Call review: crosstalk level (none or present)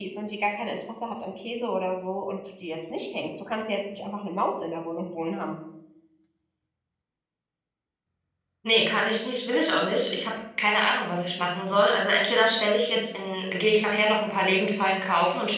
none